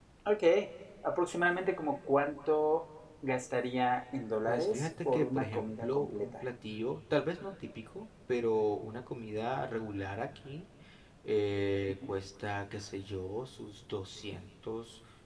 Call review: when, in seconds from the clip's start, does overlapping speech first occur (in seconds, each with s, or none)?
4.5 s